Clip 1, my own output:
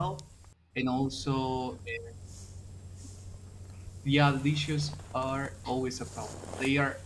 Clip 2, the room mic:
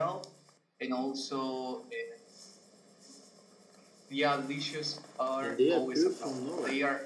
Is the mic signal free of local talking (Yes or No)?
No